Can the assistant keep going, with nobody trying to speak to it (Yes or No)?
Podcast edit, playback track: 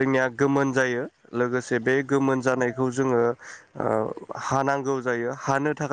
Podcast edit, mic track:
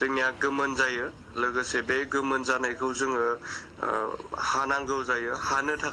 Yes